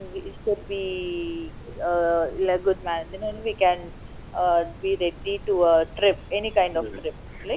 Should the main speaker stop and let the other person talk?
Yes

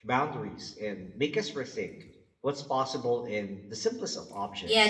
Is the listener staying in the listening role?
No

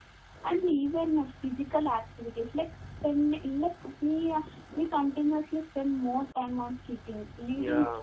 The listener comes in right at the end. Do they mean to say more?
No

